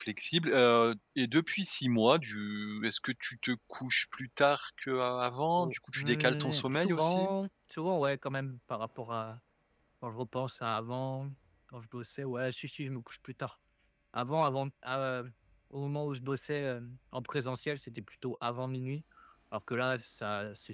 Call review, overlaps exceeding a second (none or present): present